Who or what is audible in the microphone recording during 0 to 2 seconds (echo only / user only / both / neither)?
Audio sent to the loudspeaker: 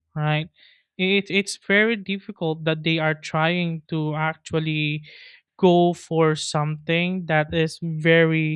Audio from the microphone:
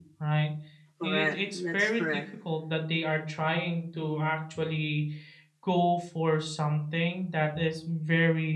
both